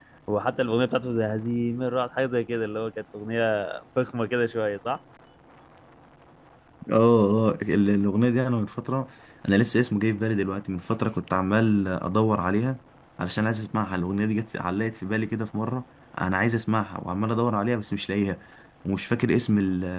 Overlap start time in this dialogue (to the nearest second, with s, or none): none